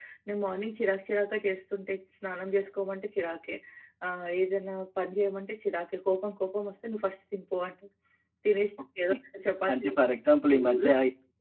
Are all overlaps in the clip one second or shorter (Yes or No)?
Yes